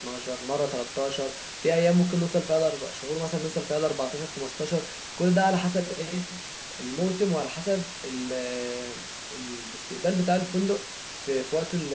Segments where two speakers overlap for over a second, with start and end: none

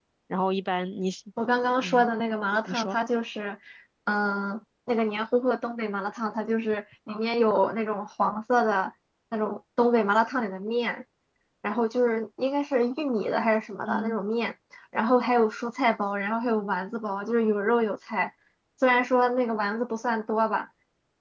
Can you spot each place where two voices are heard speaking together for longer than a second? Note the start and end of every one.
none

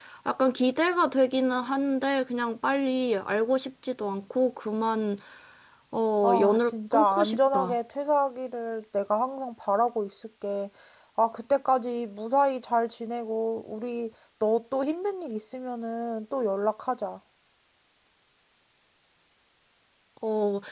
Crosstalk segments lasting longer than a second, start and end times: 6.2-7.8

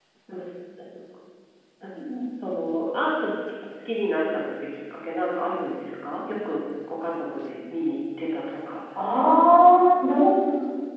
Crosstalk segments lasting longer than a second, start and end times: none

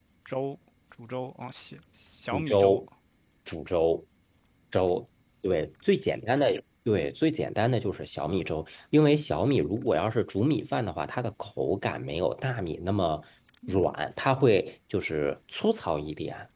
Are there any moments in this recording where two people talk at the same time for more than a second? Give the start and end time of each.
none

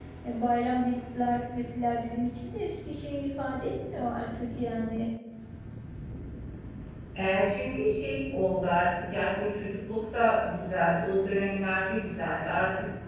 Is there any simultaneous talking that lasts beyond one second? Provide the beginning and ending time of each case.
none

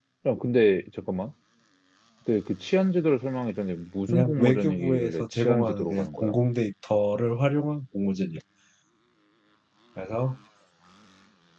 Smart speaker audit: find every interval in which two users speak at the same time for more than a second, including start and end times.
4.1-6.4

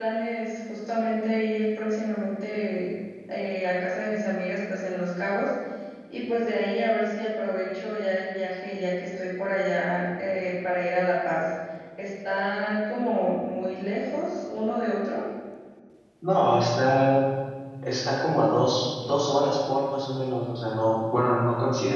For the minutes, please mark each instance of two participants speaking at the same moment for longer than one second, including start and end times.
none

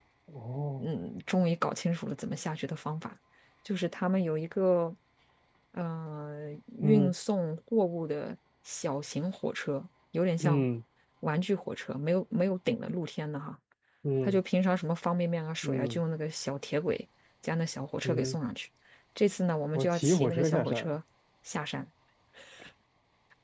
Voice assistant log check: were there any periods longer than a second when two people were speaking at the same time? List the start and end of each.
19.7-20.9

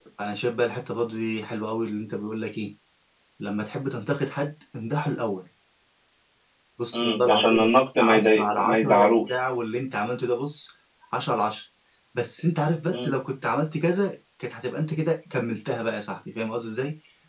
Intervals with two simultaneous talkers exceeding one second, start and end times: 6.9-9.3

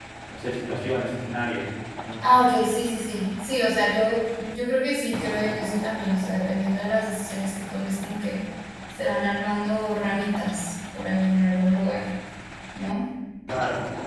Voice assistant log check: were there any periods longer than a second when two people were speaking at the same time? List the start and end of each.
none

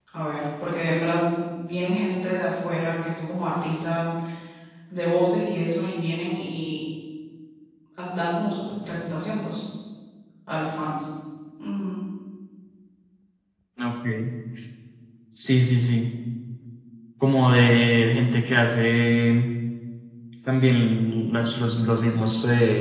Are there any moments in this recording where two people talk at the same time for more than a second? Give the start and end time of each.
none

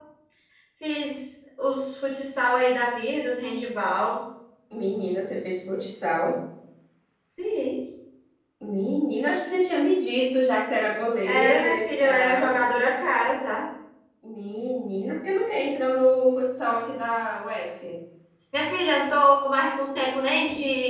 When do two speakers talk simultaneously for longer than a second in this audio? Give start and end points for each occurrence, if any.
11.2-12.5

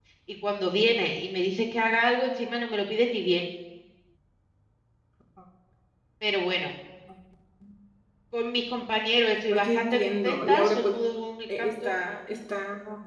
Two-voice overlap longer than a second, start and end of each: 9.5-10.9

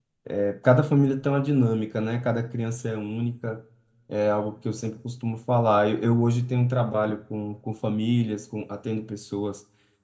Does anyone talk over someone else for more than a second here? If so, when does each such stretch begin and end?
none

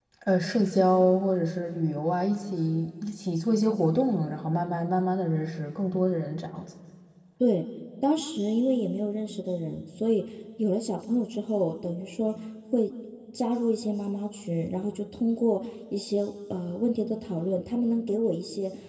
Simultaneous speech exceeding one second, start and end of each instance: none

